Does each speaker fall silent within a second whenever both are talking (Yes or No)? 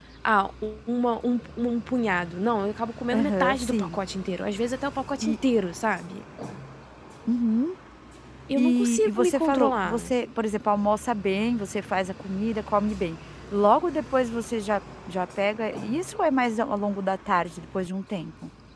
No